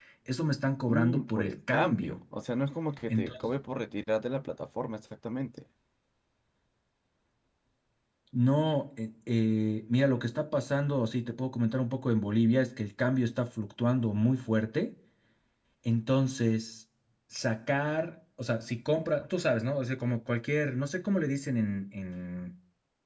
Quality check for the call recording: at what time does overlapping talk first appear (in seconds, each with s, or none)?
0.9 s